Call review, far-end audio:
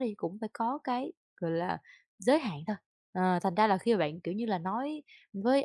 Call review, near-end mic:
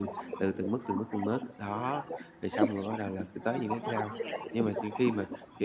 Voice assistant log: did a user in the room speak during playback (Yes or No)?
Yes